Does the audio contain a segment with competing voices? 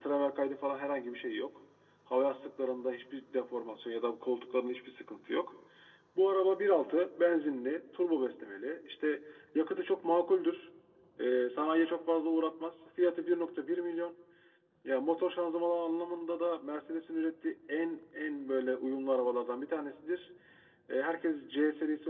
No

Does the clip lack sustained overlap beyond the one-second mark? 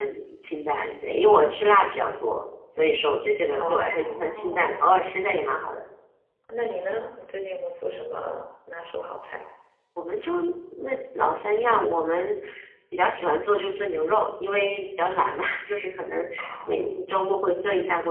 No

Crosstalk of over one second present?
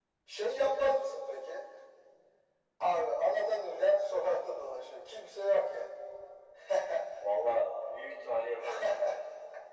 No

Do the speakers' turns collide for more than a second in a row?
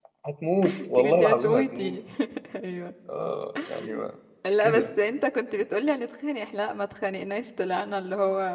Yes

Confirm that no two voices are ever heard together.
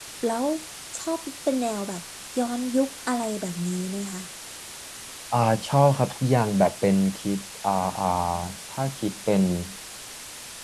Yes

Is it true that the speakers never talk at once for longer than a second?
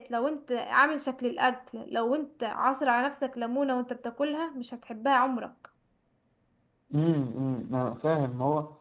Yes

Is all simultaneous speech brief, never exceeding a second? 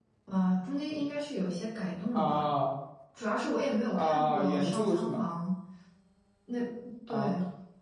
No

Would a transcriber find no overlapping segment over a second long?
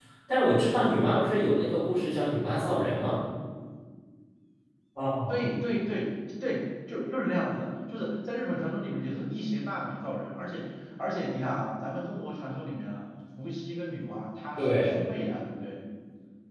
Yes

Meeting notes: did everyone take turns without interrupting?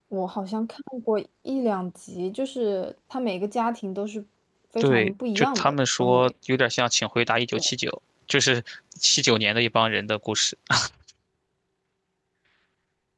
No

